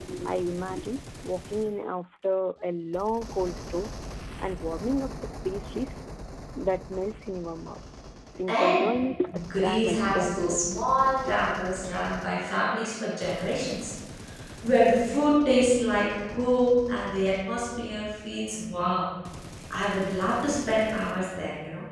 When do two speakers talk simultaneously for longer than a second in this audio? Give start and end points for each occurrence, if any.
9.6-10.8

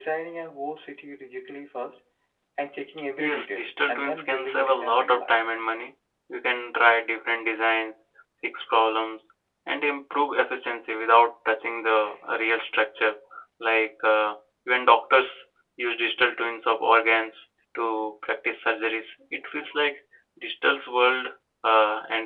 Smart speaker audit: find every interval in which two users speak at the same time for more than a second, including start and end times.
3.2-5.3

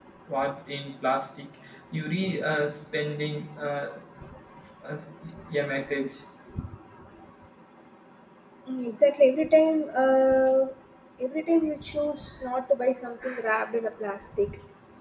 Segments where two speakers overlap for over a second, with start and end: none

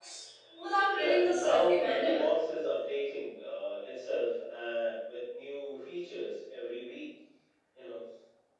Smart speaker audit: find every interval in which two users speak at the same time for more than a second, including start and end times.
0.9-2.2

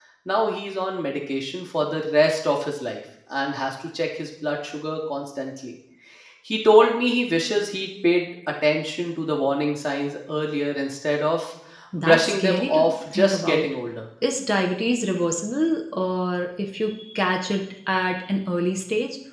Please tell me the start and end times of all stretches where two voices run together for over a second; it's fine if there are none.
12.0-13.6

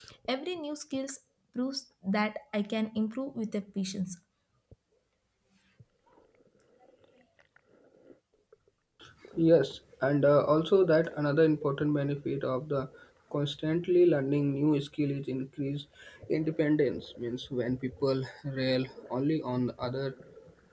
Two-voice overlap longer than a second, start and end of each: none

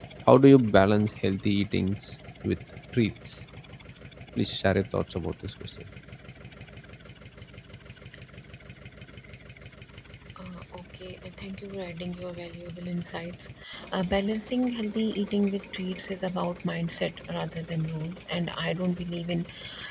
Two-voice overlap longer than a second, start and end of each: none

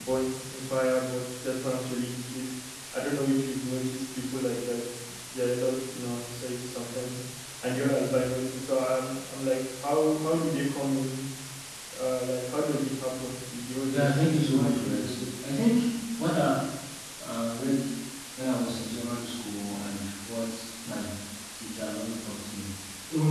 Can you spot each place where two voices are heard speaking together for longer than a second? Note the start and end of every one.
13.9-15.2

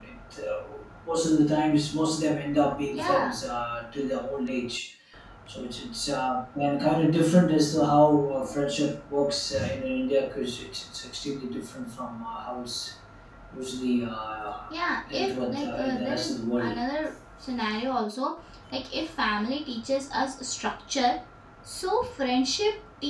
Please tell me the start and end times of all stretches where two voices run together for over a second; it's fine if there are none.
15.1-16.7

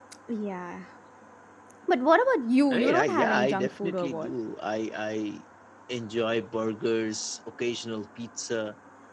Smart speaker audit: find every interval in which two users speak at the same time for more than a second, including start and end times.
2.7-4.3

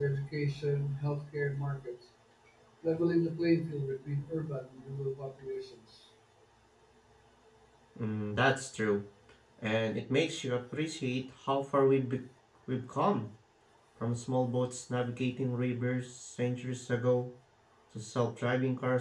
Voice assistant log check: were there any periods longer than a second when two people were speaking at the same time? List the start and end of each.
none

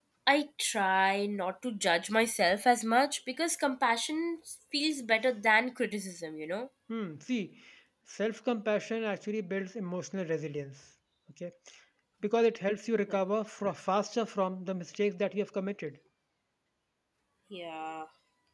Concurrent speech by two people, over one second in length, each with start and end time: none

